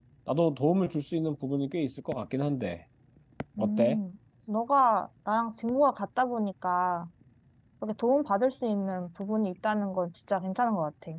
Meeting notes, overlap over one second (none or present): none